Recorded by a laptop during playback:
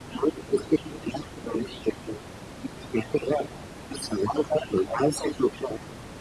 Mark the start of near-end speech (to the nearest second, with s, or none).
none